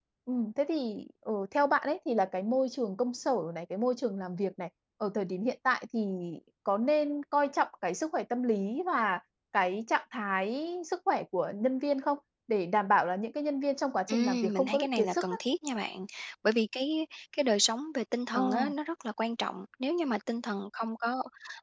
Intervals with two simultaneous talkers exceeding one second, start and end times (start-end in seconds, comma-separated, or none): 14.1-15.4